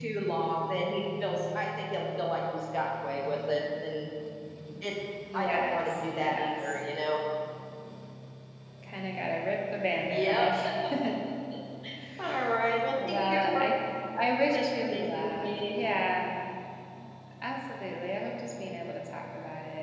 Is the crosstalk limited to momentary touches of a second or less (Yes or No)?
No